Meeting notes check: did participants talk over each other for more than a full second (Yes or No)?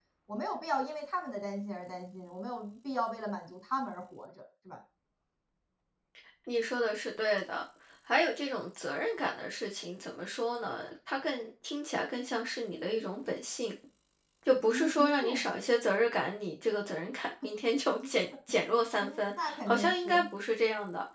Yes